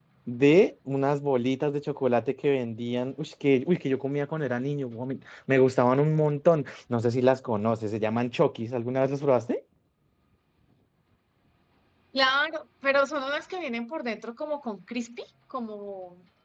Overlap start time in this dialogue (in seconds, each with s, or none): none